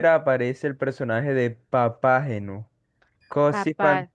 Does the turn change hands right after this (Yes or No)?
No